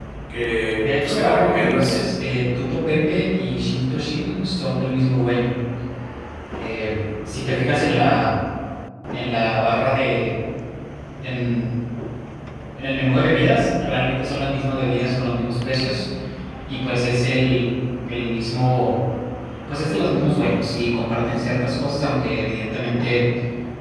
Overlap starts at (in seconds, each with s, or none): 0.7 s